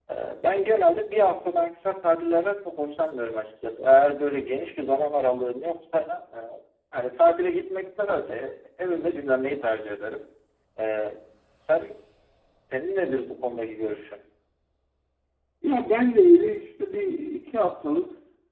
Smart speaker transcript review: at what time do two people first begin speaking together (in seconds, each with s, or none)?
none